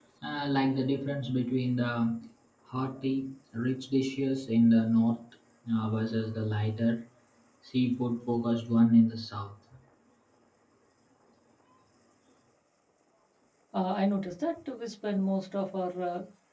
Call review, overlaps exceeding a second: none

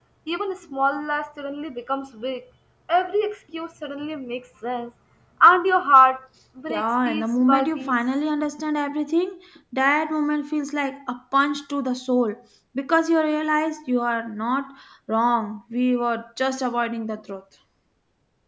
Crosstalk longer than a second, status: present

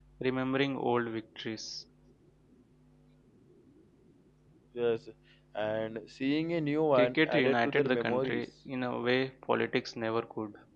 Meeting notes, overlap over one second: present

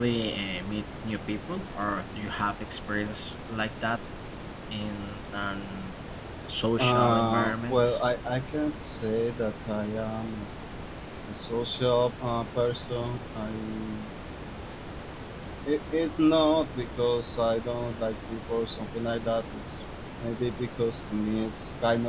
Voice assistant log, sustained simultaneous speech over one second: present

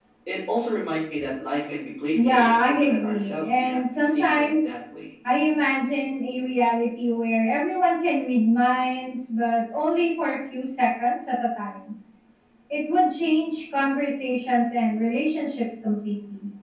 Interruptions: present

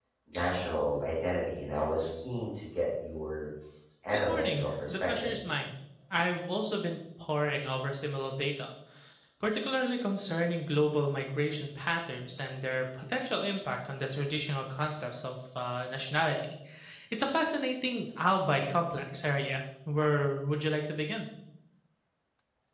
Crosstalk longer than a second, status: present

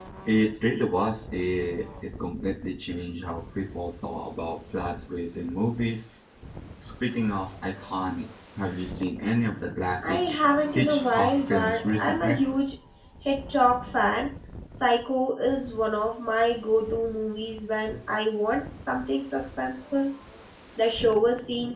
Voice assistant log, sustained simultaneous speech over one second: present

